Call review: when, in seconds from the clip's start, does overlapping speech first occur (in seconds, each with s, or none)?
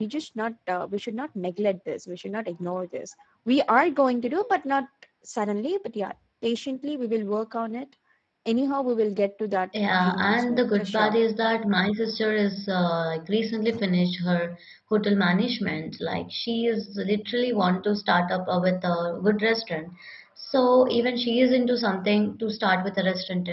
9.7 s